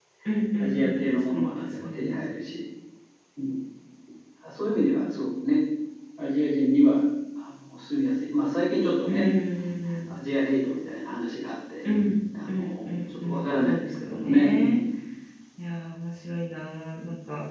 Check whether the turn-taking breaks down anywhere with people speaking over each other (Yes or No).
Yes